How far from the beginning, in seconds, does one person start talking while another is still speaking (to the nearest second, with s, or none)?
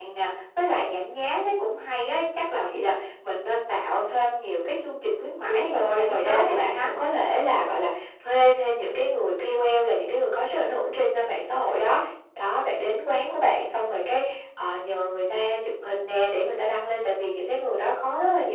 5 s